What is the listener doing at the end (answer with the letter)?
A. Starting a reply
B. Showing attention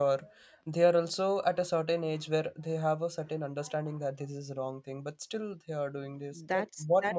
A